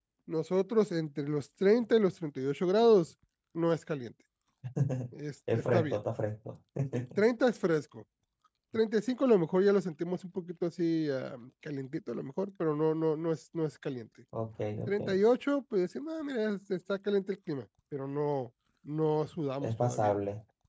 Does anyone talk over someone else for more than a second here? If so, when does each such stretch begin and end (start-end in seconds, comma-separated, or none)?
none